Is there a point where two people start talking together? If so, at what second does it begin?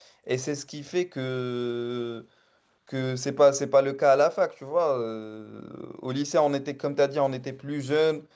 none

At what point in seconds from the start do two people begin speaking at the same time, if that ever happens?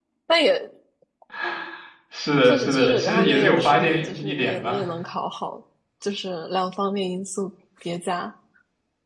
2.5 s

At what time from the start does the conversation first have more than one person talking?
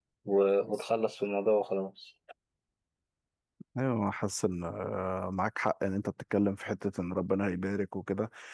none

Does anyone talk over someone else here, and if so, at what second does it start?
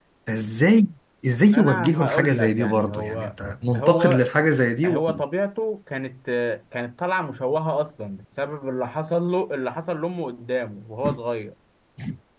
1.5 s

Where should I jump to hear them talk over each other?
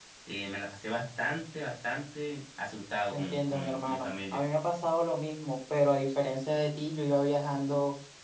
3.1 s

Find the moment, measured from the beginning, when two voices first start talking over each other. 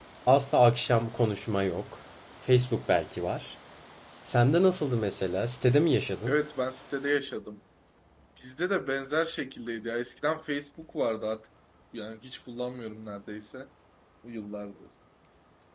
none

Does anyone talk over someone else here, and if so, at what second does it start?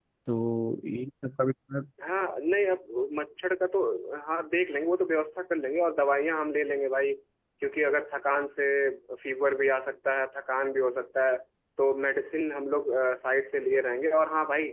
none

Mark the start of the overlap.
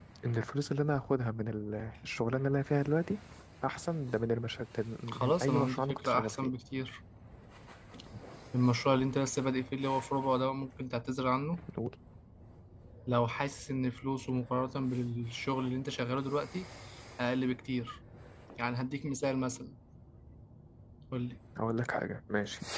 5.1 s

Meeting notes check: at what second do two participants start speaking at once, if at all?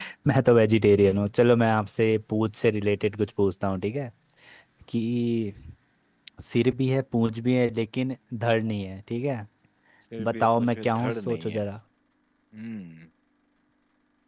10.3 s

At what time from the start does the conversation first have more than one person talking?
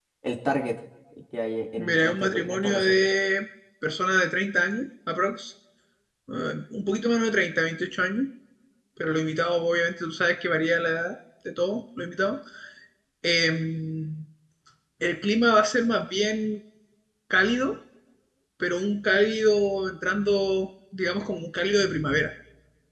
1.8 s

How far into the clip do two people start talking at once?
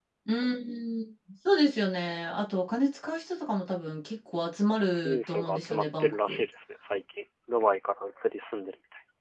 5.0 s

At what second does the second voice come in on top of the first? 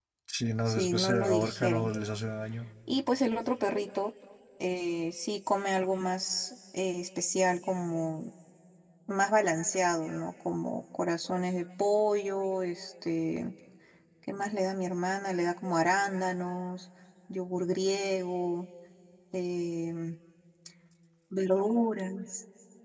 0.7 s

